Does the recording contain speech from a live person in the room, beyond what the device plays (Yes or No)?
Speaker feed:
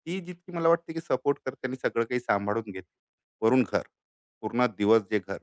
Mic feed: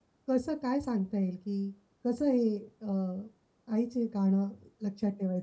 Yes